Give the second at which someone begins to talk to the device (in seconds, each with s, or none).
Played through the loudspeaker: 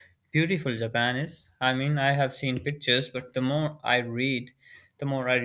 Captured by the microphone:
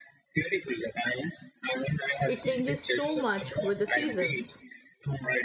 2.2 s